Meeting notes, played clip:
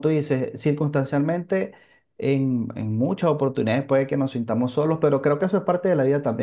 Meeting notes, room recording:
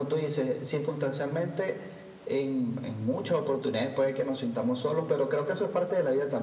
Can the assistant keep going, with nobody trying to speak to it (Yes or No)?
Yes